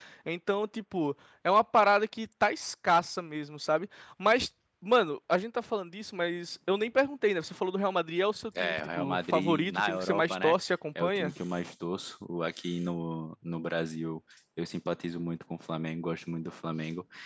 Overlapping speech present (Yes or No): Yes